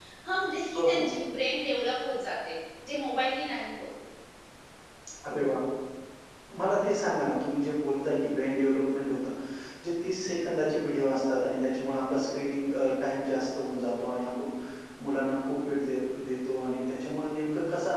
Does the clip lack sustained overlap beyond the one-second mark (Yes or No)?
Yes